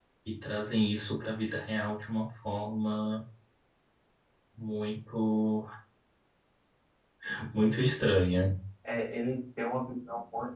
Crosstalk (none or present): none